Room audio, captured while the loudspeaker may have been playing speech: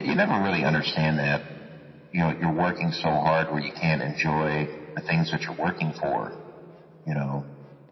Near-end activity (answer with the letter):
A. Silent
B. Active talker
A